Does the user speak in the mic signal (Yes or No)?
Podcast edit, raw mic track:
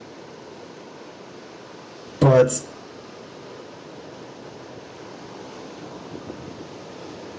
Yes